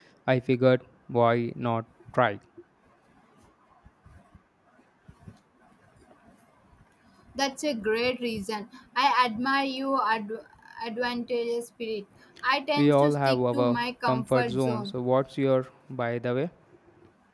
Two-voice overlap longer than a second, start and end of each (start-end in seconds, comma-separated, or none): 12.8-15.0